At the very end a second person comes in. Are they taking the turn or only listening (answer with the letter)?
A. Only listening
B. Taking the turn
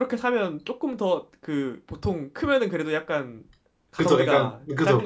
B